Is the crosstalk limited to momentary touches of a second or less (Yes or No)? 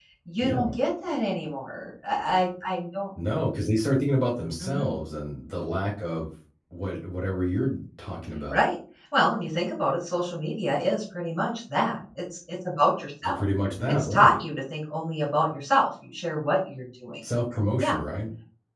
Yes